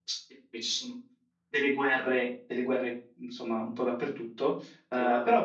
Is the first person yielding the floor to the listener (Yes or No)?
No